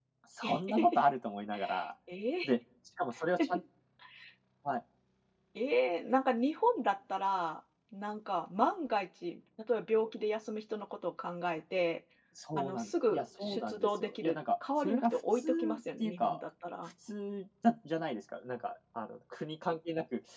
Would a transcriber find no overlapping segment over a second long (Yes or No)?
No